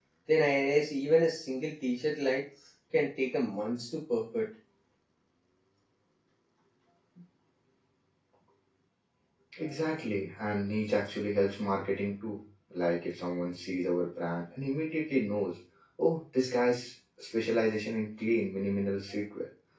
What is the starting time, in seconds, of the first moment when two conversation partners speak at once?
none

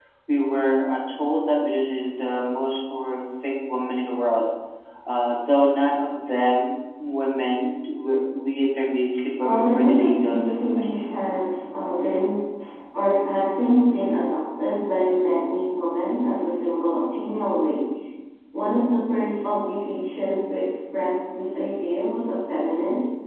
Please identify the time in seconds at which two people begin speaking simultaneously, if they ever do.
9.4 s

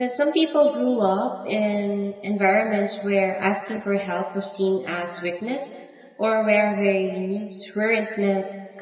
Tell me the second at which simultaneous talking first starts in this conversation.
none

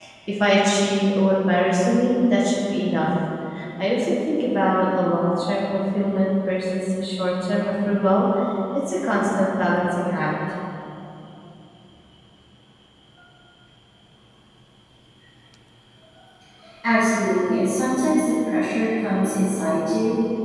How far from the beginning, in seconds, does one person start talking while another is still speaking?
none

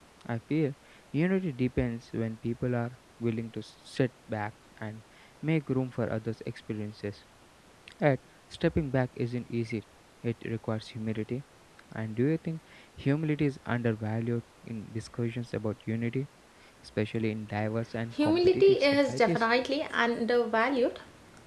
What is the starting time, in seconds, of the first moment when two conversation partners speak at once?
18.2 s

